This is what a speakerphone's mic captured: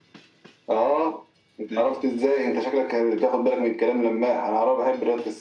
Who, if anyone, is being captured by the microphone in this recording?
echo only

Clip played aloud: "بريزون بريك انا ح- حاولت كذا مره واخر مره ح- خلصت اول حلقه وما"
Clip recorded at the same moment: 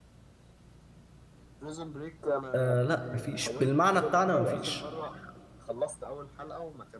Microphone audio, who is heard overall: both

